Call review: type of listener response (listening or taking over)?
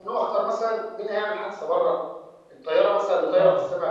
listening